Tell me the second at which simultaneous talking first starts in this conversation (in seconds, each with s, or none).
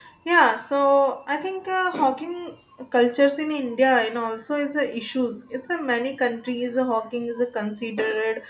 none